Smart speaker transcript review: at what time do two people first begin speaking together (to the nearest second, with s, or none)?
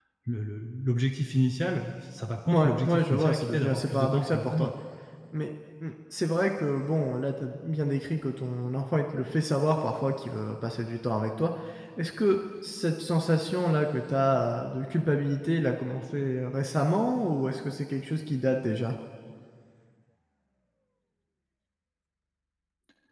2 s